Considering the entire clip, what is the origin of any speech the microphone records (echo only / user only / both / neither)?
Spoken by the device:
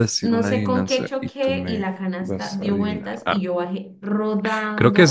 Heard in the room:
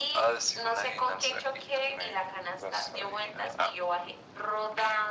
echo only